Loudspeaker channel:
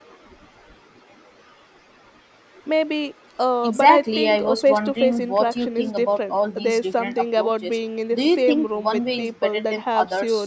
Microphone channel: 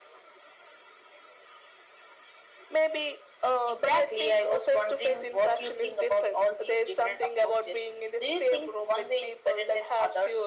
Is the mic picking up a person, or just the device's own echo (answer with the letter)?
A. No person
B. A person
A